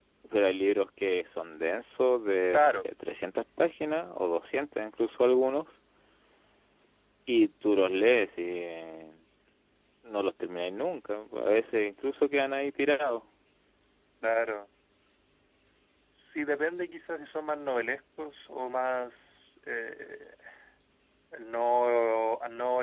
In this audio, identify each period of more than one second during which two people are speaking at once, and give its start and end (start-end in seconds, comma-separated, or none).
none